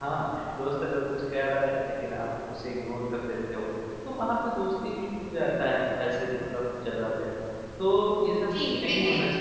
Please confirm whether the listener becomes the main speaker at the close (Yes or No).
Yes